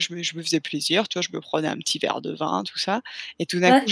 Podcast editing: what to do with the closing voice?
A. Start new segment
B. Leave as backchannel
B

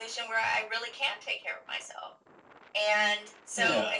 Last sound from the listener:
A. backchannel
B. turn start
A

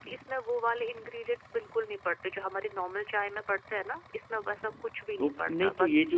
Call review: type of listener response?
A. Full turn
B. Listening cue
A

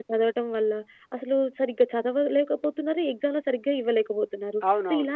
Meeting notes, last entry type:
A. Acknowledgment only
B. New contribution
A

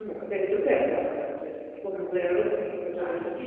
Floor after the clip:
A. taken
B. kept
B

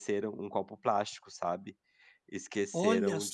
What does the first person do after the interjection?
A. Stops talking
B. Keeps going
B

